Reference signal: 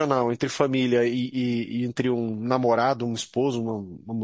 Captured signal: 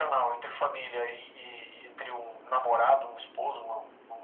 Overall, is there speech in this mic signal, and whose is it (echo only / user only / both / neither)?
echo only